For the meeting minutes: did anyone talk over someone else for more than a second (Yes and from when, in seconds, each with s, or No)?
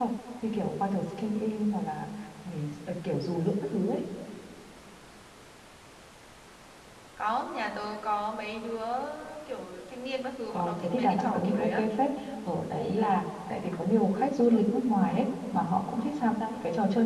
Yes, from 10.5 s